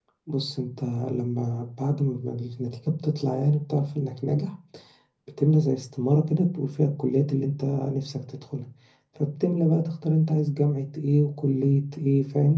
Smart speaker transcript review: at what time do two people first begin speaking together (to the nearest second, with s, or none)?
none